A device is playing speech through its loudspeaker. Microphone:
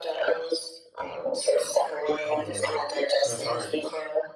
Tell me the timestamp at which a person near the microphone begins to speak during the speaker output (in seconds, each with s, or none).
2.2 s